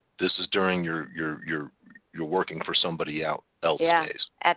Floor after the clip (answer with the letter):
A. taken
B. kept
A